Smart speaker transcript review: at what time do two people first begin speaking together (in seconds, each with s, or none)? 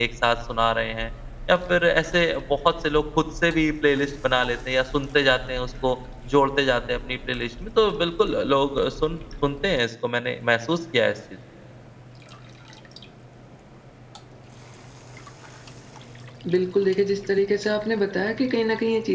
none